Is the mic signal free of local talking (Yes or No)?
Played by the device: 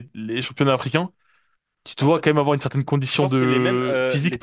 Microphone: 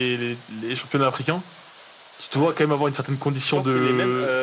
Yes